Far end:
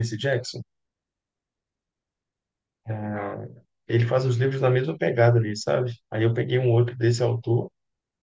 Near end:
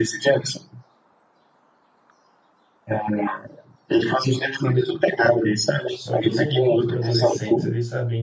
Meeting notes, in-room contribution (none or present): present